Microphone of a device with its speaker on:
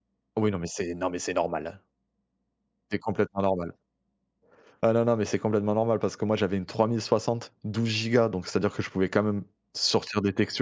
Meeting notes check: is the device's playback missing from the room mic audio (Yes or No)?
Yes